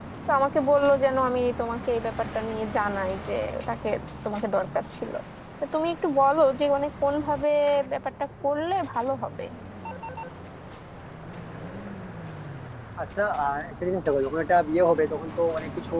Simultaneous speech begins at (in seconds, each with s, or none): none